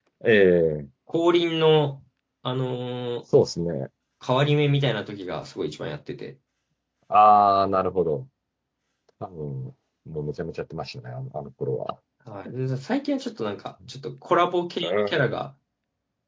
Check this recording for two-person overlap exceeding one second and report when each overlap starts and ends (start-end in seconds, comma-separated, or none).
none